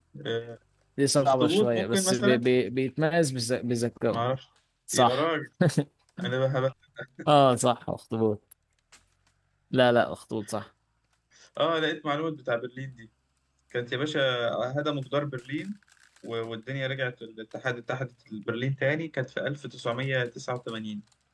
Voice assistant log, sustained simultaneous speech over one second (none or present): present